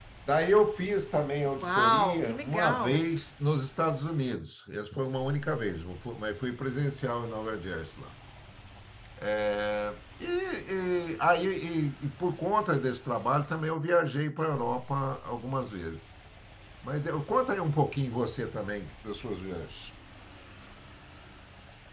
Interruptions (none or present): present